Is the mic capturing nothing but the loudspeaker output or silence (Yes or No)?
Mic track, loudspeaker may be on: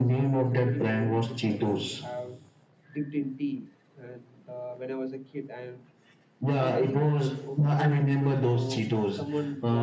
No